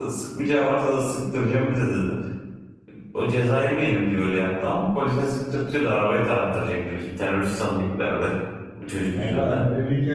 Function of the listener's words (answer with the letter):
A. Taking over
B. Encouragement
A